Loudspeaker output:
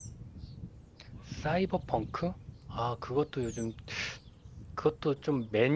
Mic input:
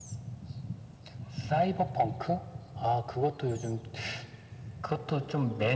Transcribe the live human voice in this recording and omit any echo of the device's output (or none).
none